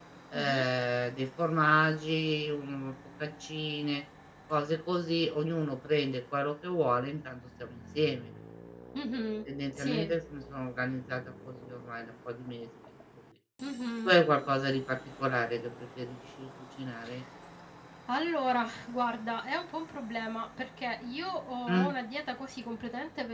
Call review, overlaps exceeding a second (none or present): none